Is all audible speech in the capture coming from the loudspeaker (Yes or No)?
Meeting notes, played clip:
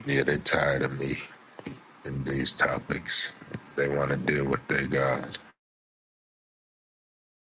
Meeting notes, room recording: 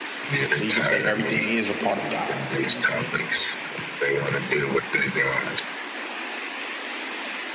No